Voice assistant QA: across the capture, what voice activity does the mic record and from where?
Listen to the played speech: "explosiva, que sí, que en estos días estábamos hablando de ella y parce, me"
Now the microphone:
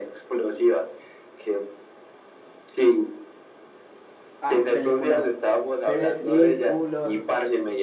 both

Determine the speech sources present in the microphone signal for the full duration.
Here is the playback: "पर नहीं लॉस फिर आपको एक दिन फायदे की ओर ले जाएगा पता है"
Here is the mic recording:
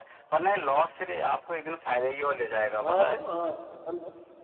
both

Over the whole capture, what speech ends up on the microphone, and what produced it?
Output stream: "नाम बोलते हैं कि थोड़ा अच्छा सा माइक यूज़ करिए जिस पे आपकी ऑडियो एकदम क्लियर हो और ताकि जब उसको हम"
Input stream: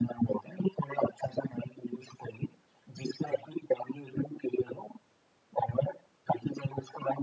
echo only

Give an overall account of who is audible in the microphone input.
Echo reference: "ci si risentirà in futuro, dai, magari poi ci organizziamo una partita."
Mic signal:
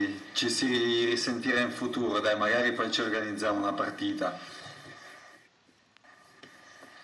echo only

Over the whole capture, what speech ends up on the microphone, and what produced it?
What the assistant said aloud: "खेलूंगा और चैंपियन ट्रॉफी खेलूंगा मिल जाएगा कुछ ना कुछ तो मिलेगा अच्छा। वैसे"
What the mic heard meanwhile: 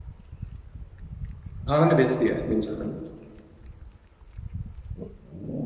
user only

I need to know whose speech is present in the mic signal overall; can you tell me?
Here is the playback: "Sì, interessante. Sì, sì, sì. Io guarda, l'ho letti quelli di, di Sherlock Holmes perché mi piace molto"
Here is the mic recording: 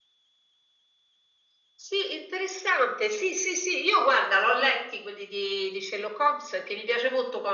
echo only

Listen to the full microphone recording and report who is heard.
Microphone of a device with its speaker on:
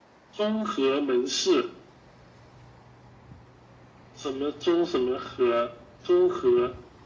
echo only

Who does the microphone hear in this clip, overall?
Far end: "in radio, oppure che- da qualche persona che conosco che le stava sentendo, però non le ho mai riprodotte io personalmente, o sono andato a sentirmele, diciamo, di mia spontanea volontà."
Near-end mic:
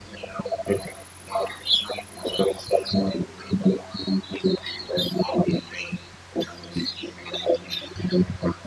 echo only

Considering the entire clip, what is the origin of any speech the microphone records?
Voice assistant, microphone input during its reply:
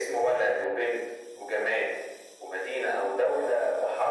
echo only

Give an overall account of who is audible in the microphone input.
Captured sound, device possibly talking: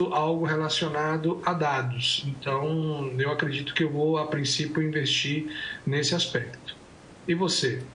user only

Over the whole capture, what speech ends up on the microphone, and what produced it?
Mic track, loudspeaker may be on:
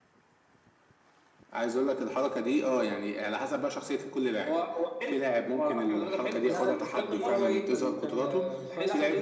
both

